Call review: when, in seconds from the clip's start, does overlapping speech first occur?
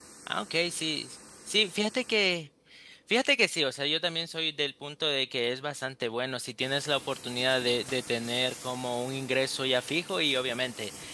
none

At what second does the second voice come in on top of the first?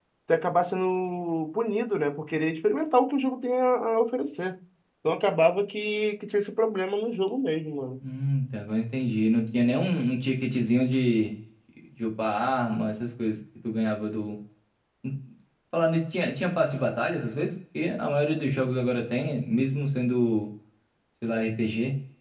none

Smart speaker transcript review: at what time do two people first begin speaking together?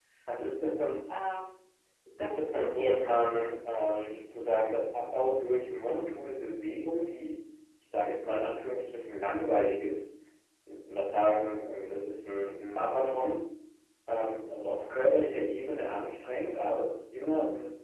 2.2 s

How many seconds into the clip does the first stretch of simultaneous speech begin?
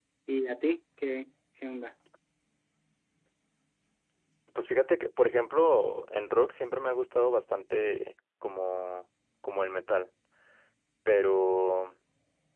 none

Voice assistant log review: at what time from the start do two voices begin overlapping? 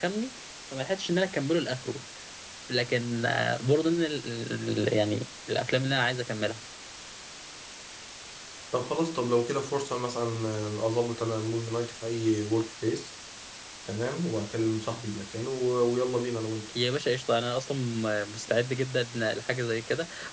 none

